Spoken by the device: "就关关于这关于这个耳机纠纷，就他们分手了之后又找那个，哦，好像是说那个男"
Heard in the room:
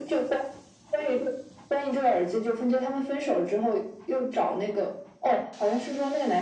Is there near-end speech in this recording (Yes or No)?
No